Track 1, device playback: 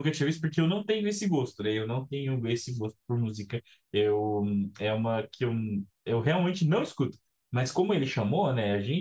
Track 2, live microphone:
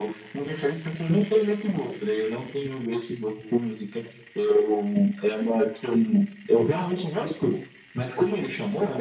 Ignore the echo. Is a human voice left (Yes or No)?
No